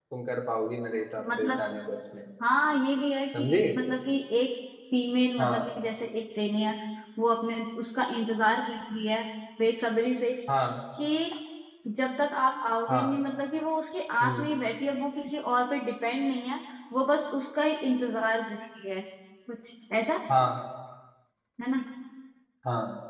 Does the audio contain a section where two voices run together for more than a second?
No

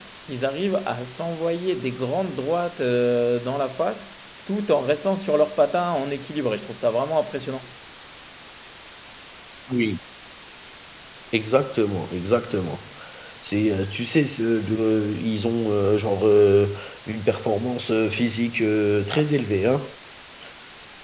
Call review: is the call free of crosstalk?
Yes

